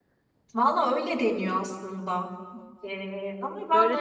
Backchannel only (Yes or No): No